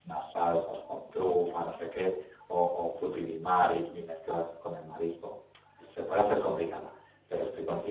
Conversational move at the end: listening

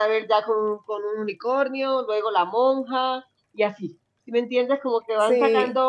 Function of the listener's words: listening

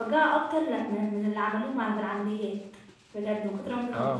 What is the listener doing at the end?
taking over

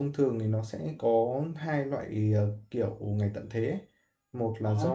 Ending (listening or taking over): listening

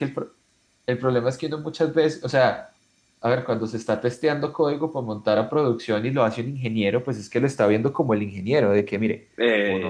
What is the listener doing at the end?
listening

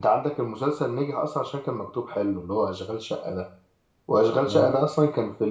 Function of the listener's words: listening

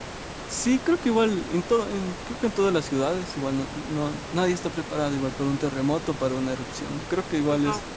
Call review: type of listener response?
listening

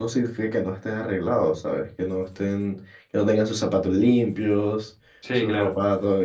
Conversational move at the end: listening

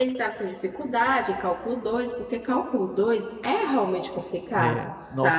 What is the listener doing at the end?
taking over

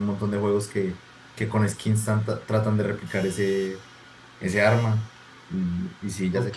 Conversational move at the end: taking over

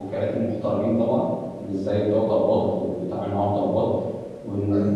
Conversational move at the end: listening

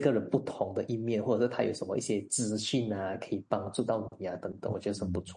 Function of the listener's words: taking over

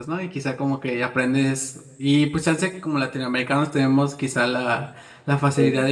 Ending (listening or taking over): listening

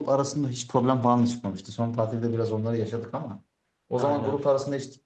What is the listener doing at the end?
listening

